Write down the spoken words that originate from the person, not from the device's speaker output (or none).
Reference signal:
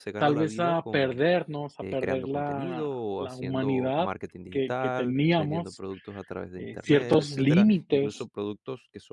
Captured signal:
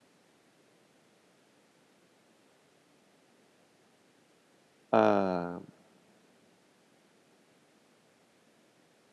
a